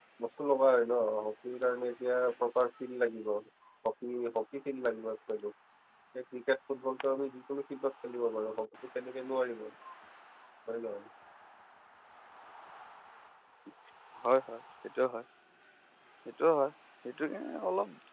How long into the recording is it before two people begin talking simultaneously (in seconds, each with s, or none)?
none